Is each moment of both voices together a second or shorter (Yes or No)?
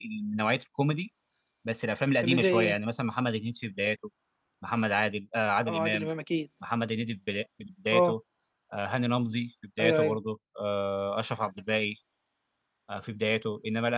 Yes